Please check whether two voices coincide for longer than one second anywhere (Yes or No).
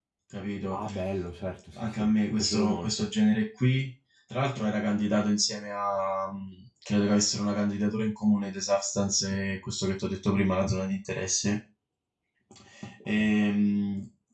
Yes